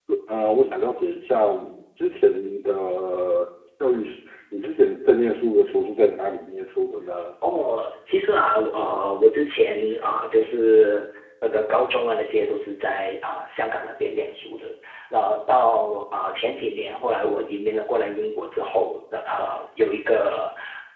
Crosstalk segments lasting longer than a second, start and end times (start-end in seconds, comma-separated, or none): none